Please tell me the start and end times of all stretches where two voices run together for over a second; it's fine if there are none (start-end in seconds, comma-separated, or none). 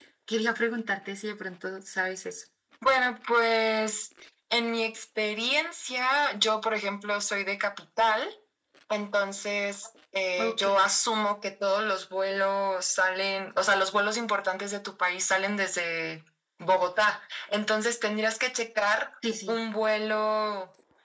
none